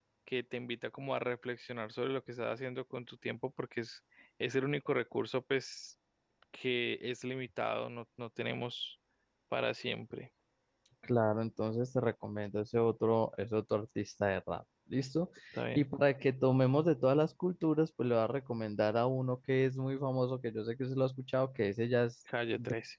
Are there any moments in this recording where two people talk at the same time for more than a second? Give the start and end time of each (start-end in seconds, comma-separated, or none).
none